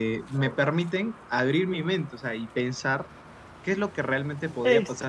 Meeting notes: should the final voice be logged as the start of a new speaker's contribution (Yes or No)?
No